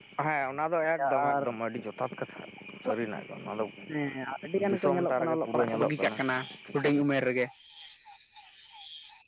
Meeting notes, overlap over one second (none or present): present